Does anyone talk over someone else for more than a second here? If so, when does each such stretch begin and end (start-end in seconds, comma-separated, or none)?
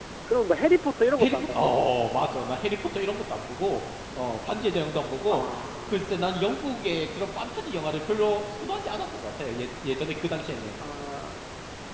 none